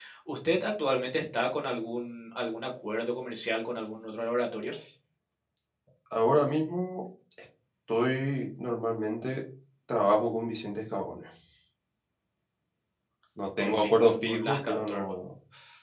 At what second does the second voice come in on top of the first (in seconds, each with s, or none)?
13.6 s